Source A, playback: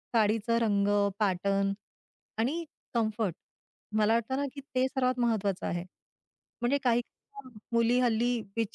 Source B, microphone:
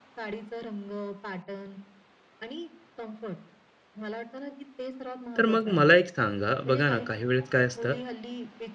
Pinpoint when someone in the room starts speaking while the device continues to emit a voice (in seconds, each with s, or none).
5.4 s